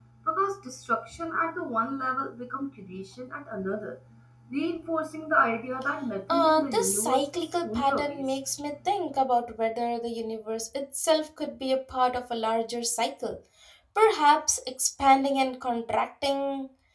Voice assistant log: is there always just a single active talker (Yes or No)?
No